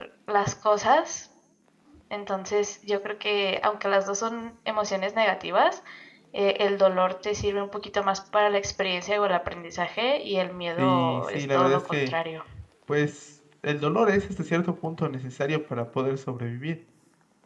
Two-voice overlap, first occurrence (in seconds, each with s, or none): 10.8 s